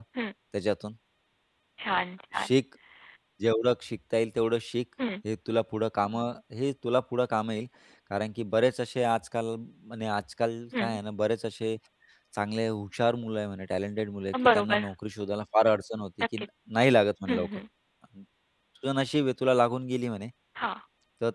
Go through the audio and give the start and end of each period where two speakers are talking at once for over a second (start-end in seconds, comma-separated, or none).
none